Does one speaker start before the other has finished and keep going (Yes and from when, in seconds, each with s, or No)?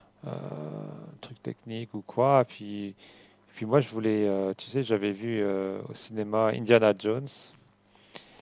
No